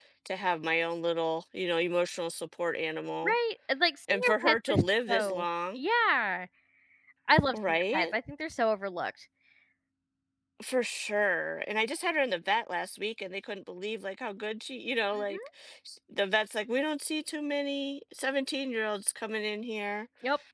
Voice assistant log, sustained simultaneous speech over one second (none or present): present